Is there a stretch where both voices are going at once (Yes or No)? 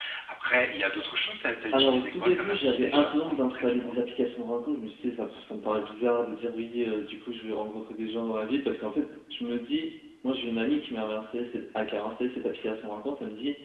Yes